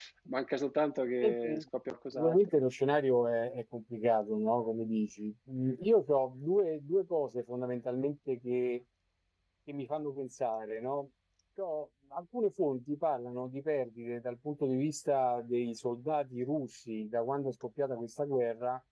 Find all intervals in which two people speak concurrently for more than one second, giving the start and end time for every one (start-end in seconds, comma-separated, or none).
none